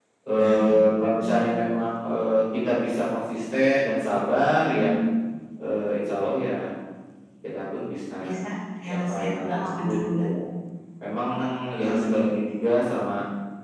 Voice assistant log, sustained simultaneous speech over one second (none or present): present